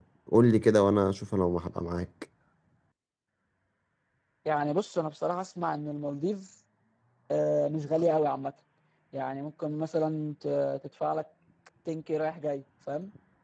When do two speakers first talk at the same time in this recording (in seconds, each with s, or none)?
none